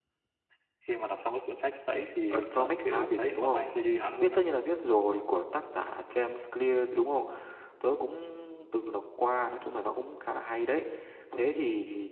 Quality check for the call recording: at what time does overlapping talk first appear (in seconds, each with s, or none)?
2.3 s